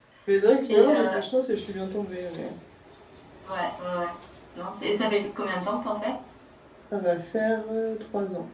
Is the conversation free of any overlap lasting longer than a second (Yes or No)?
Yes